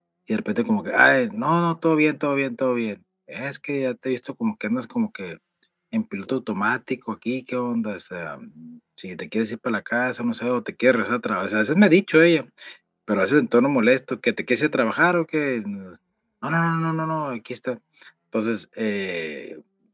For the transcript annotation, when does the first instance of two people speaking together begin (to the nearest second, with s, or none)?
none